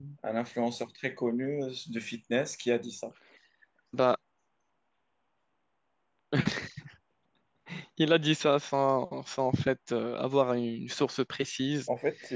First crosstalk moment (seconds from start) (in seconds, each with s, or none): none